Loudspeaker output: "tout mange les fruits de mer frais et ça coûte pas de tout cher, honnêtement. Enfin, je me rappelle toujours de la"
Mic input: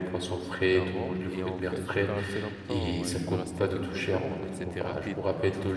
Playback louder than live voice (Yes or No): Yes